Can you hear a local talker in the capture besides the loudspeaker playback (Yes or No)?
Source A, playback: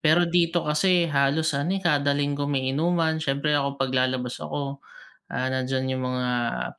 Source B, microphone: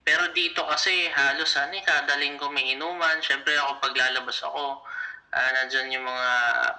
No